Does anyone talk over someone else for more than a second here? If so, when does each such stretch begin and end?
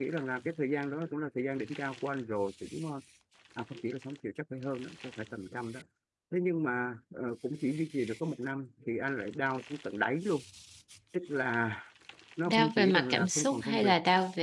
12.5-13.9

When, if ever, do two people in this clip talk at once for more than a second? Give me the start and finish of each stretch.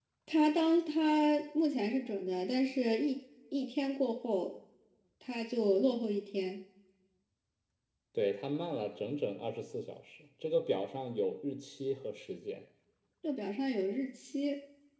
none

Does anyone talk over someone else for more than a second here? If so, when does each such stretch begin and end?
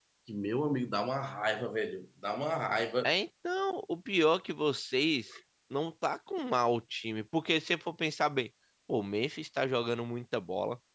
none

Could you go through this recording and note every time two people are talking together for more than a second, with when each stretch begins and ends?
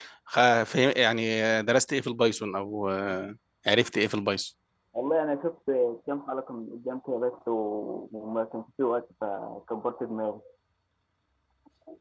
none

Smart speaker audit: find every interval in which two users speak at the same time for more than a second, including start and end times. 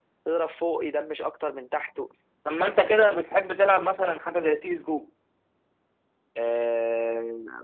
none

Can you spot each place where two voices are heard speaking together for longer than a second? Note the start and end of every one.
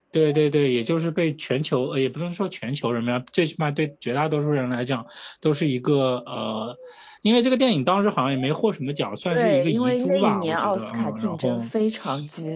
9.3-11.7

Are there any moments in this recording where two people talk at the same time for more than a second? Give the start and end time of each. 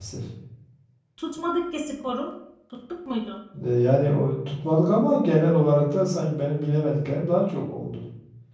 none

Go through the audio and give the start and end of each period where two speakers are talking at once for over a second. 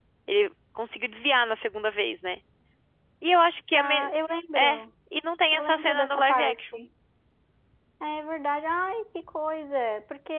5.5-6.8

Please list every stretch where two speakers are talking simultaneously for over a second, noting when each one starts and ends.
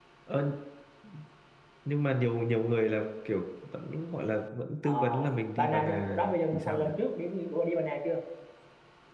5.6-6.8

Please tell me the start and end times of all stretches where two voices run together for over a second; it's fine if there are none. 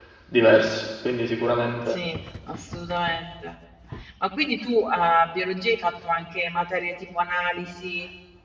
none

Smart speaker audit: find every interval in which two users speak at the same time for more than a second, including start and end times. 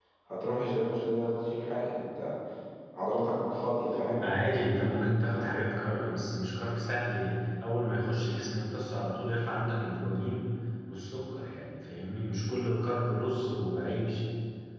none

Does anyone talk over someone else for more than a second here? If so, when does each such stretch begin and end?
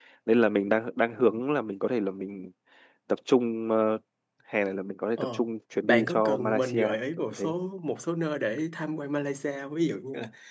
5.8-7.5

